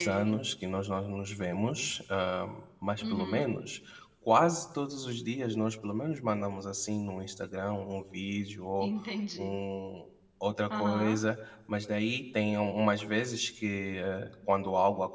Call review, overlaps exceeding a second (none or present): none